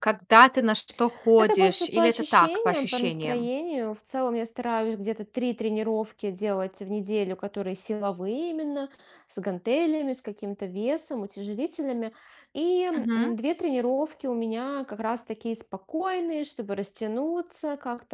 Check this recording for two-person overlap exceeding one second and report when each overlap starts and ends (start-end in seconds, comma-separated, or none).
1.4-3.5